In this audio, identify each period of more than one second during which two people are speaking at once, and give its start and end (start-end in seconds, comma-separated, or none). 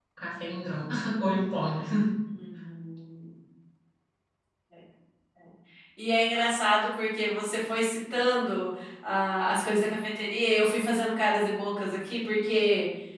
none